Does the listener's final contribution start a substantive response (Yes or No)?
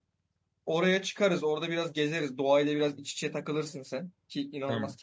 No